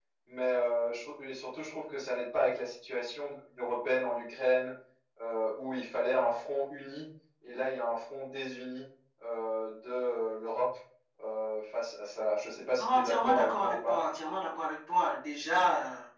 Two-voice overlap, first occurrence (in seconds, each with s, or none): 12.8 s